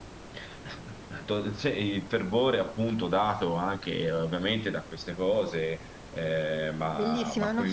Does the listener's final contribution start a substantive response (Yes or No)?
Yes